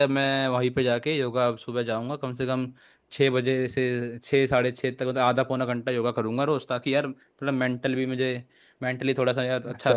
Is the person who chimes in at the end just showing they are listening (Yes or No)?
No